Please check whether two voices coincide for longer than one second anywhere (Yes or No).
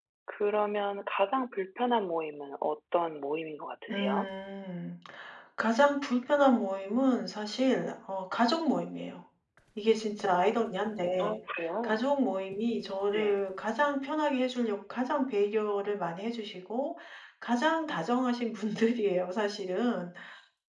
No